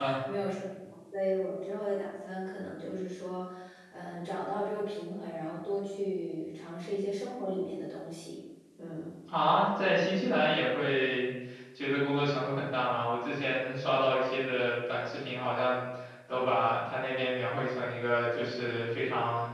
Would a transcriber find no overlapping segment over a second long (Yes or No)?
Yes